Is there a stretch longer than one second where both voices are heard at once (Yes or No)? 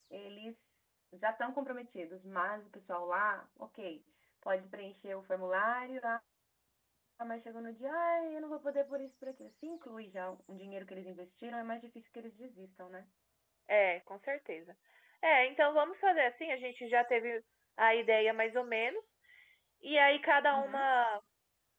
No